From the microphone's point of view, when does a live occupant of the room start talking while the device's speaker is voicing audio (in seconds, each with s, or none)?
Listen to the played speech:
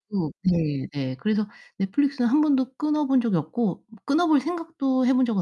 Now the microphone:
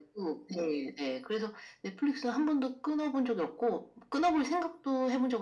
none